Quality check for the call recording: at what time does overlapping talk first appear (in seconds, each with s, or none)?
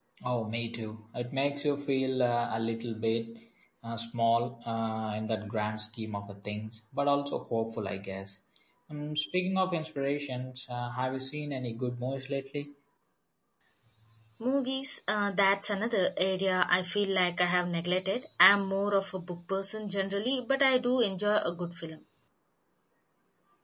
none